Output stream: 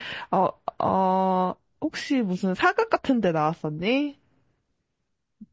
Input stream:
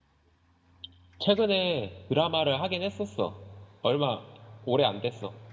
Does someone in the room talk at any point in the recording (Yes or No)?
Yes